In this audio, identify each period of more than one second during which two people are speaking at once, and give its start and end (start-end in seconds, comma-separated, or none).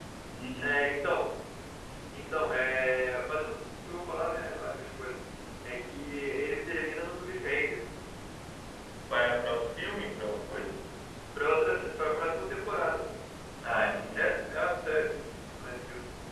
none